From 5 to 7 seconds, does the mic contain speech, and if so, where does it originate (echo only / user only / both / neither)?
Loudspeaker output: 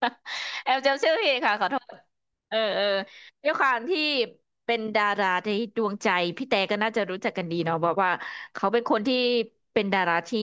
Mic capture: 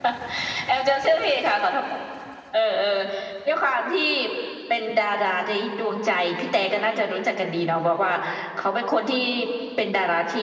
echo only